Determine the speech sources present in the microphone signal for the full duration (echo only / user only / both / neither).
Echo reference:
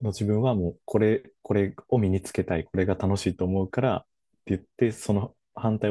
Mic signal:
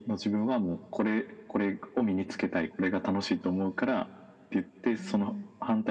both